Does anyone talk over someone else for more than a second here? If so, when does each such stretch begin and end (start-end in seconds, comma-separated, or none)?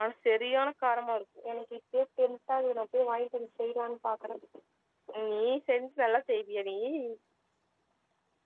none